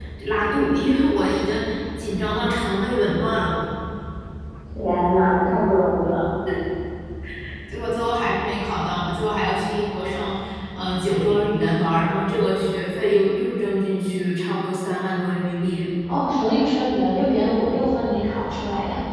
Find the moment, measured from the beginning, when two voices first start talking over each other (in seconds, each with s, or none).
none